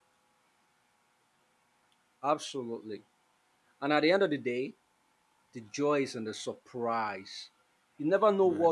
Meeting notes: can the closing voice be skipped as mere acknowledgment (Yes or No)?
Yes